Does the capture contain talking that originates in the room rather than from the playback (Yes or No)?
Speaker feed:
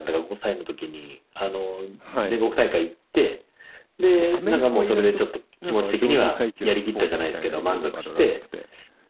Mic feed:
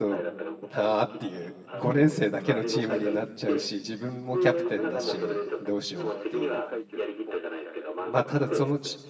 Yes